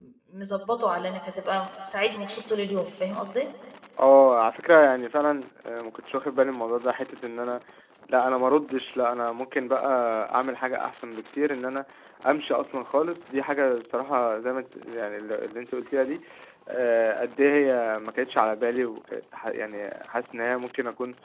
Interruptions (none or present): none